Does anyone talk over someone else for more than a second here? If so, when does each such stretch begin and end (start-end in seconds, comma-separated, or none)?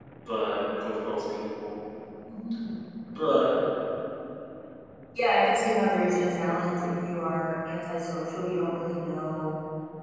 none